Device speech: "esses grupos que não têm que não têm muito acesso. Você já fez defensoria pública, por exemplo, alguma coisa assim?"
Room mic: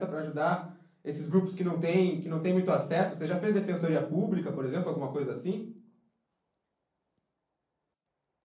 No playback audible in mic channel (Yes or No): No